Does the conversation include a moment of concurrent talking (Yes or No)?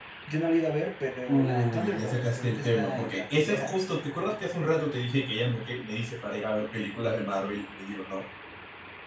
Yes